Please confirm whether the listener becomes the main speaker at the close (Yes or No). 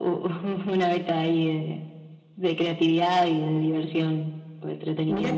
Yes